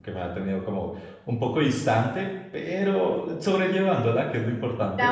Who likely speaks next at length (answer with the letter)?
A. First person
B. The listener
B